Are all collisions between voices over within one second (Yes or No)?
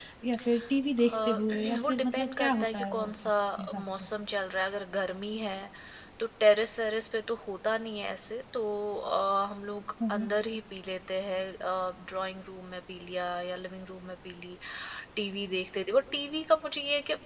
No